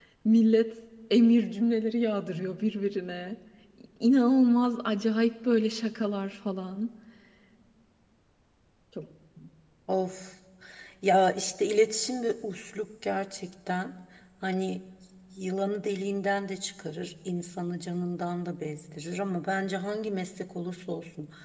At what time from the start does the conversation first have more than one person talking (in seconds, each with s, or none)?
none